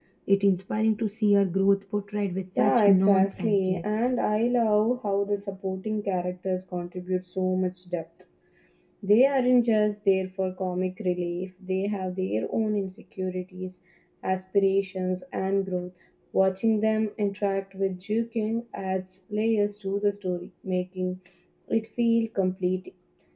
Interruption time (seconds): 2.6 s

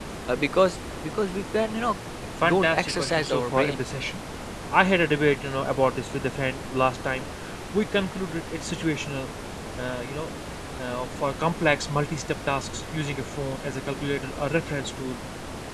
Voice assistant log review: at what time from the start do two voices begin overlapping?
2.4 s

